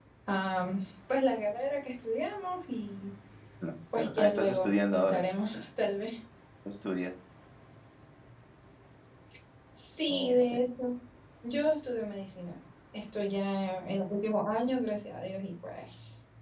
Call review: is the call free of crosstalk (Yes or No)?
No